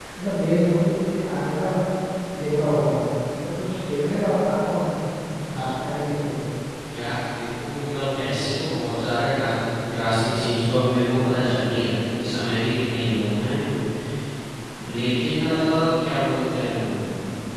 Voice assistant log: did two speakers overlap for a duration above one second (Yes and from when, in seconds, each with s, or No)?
No